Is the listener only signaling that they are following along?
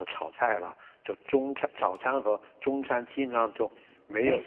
No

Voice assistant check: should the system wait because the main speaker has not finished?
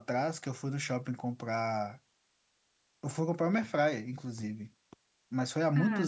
Yes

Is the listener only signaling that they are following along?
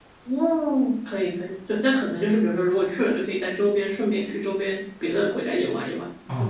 No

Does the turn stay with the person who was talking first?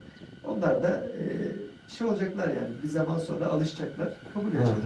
No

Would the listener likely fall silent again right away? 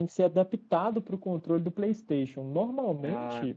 Yes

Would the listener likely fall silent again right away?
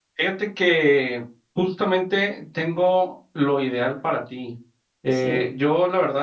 Yes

